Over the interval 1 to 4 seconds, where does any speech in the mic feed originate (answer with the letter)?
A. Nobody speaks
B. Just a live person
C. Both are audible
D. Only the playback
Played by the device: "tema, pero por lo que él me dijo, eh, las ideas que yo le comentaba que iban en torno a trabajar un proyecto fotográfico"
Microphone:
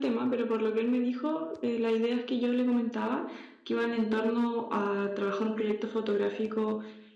D